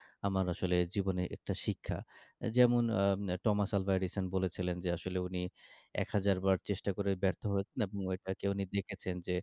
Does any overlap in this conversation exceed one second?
No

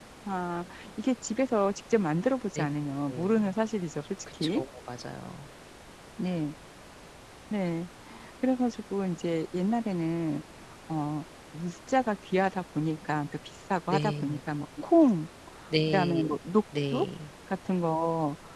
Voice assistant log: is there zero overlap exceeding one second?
Yes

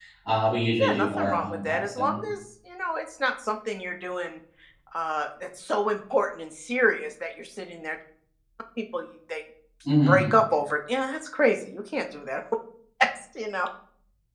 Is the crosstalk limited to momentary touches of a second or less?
No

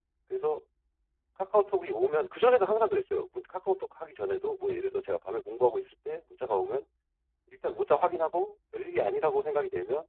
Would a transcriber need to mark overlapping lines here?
No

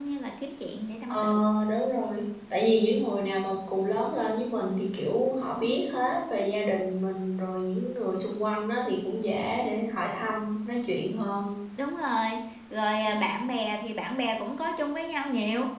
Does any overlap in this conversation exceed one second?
No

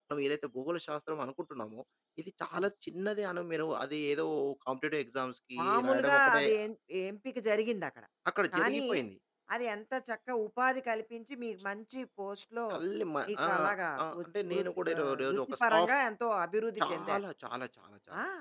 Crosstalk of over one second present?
Yes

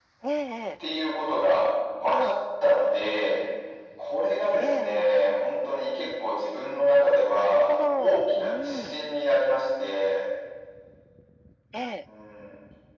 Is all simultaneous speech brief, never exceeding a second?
No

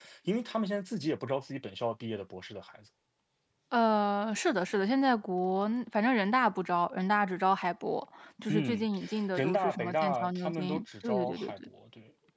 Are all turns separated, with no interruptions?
No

